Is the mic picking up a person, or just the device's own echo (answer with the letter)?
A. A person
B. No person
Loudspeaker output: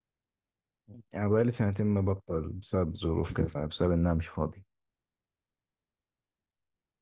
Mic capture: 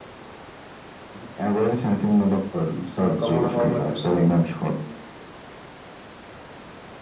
A